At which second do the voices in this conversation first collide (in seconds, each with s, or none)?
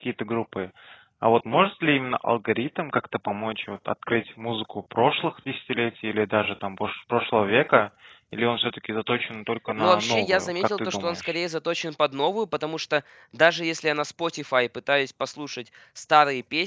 9.8 s